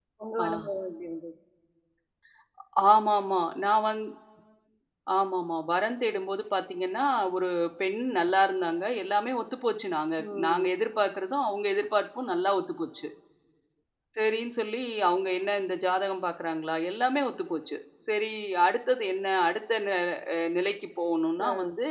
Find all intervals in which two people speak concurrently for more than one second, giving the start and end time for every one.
none

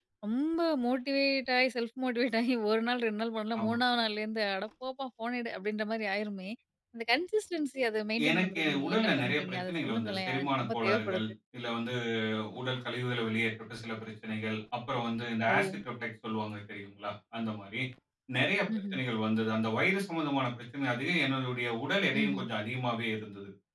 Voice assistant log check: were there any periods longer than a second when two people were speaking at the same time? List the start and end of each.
8.3-11.2

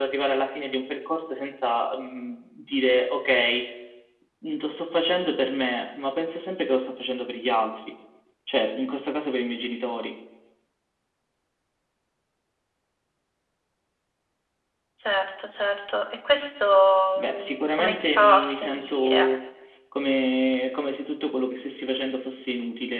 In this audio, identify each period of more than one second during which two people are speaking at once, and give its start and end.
17.1-19.3

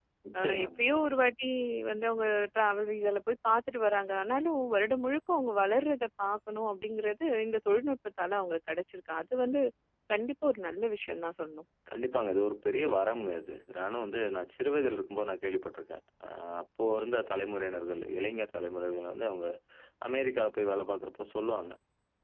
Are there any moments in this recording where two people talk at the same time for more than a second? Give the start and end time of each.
none

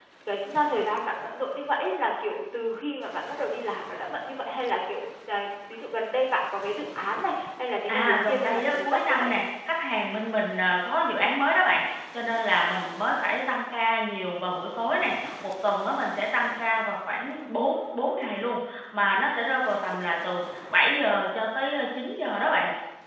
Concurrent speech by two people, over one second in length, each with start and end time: 7.9-9.4

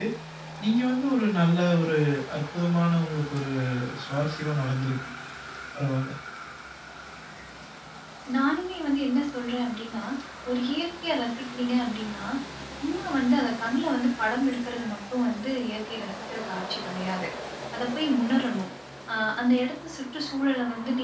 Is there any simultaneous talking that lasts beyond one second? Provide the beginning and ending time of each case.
none

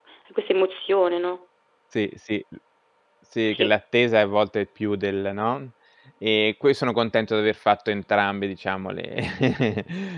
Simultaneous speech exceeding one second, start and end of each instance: none

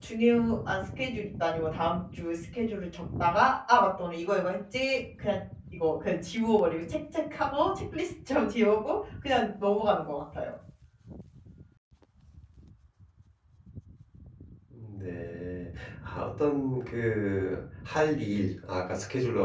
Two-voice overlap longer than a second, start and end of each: none

